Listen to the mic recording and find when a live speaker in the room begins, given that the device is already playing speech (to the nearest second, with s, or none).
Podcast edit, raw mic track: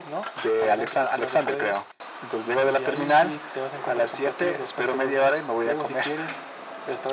none